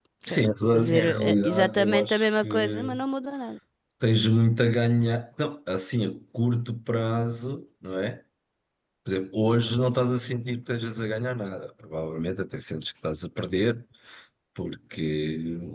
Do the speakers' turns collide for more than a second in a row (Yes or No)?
Yes